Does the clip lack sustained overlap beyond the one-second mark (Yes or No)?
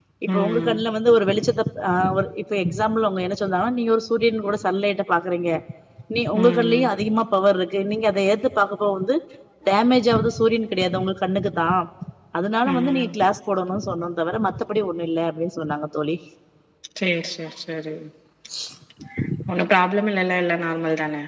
Yes